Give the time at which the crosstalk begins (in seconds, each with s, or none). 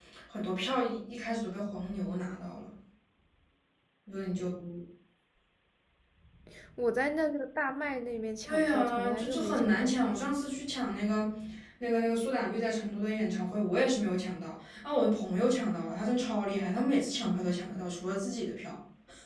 8.5 s